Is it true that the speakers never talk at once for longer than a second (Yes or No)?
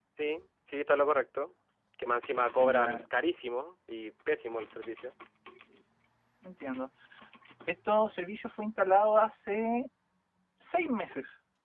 Yes